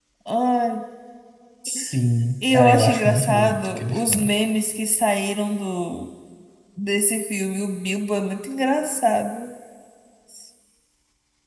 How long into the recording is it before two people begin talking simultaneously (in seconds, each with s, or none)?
2.5 s